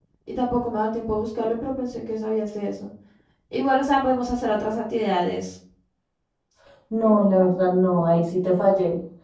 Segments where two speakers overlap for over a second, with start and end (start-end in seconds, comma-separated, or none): none